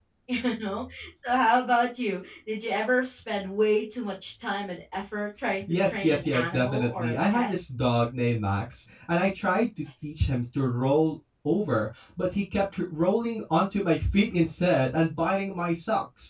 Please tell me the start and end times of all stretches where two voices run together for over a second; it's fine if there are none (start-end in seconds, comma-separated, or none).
5.8-7.5